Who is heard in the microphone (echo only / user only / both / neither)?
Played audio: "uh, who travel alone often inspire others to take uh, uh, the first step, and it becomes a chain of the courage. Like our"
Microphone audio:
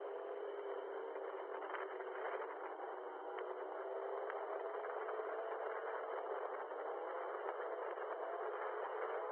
neither